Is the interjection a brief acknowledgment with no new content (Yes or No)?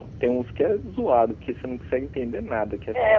No